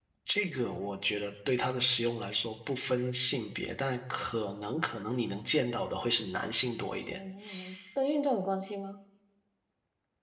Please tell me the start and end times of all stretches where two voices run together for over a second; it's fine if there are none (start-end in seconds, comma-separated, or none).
none